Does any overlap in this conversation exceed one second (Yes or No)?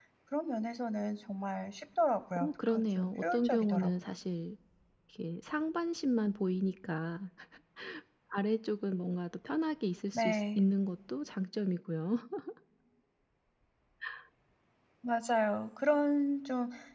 Yes